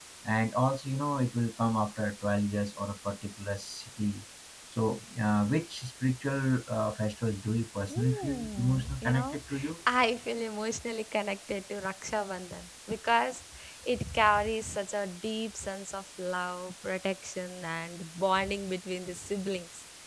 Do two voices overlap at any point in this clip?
Yes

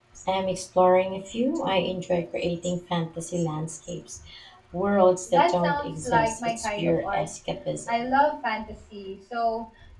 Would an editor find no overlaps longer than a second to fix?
No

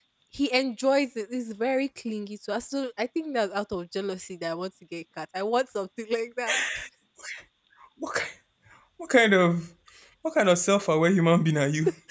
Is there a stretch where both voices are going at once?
No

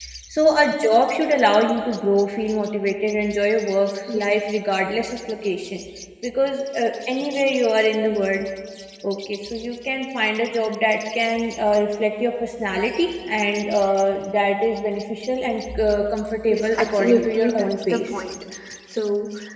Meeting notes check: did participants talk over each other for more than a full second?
Yes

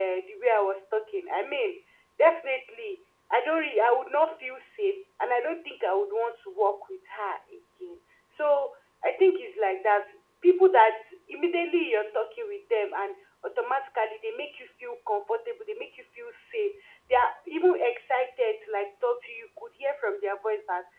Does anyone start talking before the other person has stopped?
No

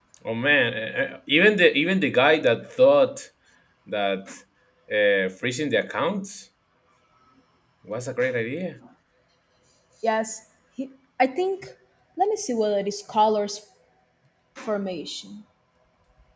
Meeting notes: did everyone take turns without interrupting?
Yes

